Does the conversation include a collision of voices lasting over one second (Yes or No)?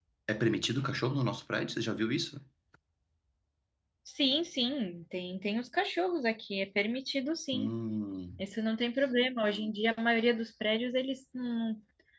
No